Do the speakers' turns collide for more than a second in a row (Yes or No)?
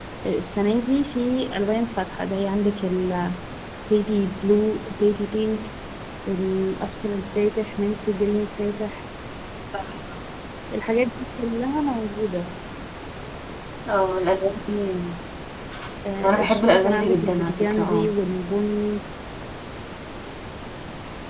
Yes